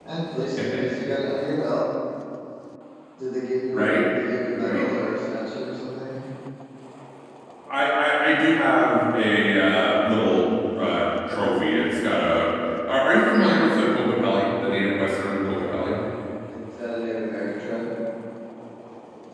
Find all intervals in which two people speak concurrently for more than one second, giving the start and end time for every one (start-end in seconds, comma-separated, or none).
none